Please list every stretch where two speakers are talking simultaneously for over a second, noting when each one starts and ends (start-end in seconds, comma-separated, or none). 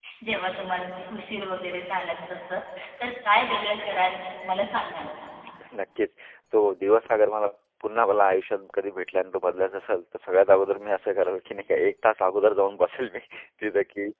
none